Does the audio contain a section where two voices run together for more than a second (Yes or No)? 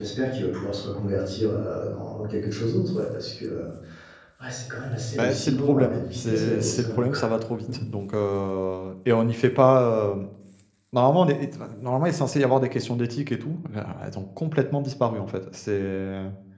Yes